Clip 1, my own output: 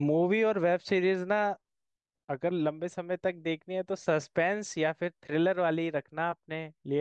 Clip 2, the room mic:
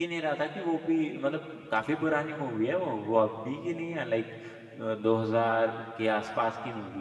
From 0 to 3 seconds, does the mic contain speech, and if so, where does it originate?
user only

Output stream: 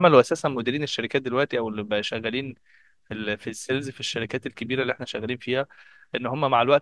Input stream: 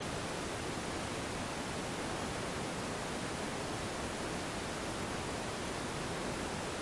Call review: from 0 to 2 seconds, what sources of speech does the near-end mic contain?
neither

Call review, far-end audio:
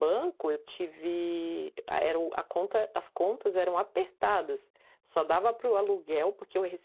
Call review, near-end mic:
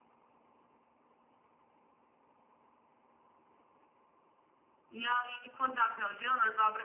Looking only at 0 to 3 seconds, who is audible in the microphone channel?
neither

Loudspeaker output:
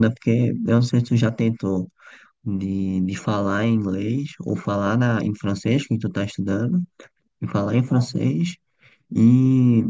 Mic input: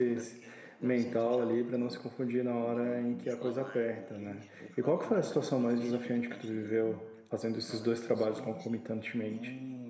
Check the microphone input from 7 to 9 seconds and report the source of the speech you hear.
both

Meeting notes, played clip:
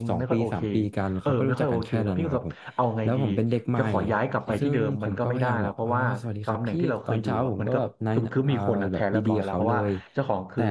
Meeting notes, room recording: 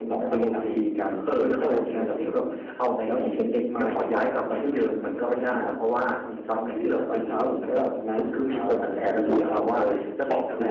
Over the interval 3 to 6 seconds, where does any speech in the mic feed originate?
echo only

